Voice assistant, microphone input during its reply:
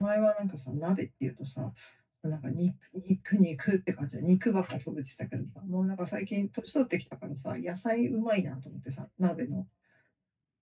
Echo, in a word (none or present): none